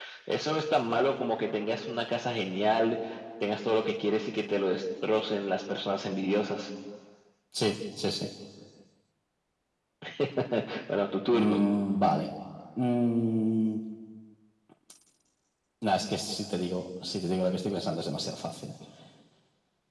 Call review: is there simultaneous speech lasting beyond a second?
No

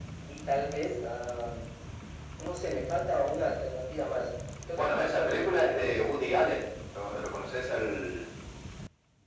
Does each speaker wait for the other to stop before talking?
No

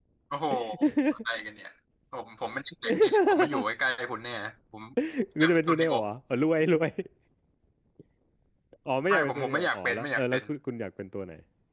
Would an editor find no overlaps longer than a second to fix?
No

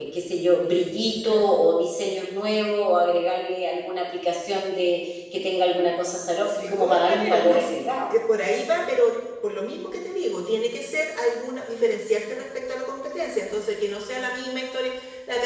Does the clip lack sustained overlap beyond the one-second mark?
No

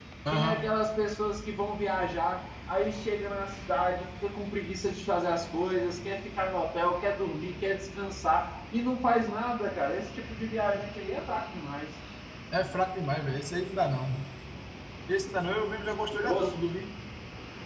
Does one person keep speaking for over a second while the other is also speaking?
No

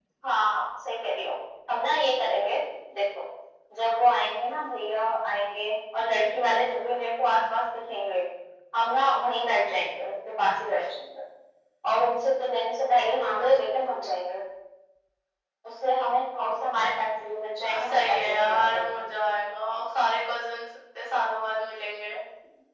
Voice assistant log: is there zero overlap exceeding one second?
No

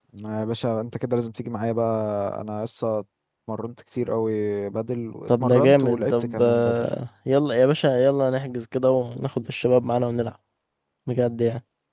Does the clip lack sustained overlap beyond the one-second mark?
No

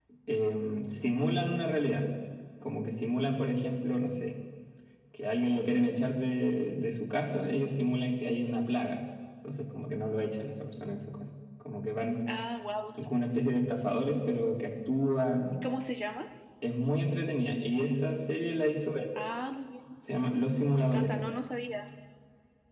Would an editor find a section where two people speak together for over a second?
No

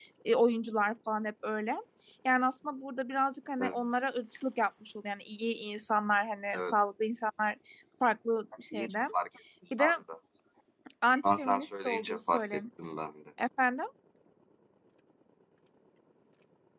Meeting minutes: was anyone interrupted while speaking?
Yes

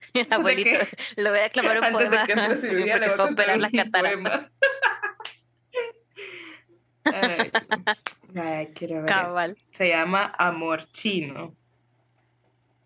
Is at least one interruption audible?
Yes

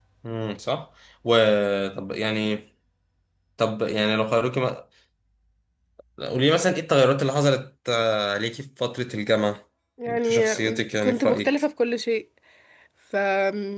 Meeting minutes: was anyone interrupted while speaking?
Yes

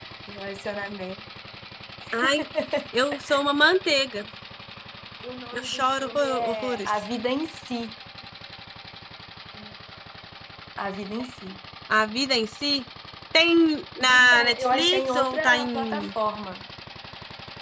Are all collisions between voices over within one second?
No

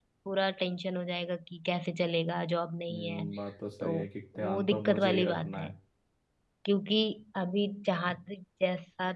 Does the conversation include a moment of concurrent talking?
Yes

